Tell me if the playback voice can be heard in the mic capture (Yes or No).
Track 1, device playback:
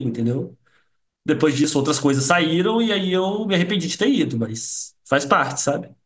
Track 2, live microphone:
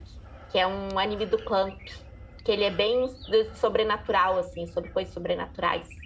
No